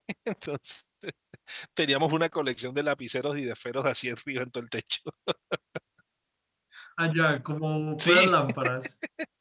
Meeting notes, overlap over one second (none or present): none